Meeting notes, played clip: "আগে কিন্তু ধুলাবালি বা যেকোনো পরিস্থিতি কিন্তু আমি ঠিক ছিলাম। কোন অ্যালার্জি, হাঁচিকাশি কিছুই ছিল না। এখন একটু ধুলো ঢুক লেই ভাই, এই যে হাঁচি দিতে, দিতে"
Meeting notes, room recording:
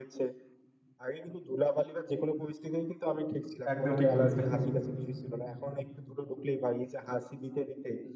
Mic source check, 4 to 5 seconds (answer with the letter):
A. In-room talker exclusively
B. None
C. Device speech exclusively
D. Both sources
D